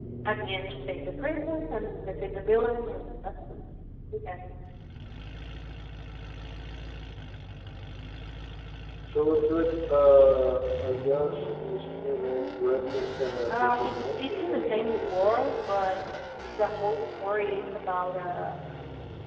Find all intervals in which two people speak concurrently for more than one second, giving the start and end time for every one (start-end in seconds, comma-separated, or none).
13.5-15.4